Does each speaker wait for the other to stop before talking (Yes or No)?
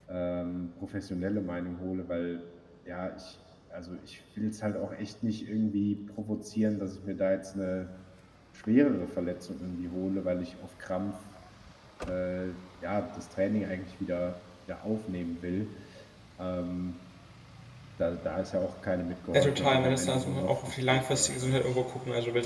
No